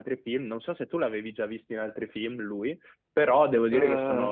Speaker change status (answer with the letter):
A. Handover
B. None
B